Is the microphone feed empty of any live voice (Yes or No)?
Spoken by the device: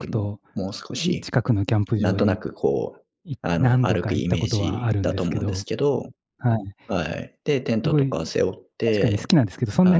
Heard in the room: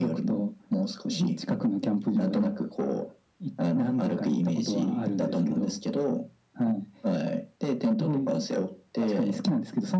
Yes